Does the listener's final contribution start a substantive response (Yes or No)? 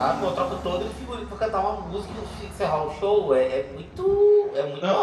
Yes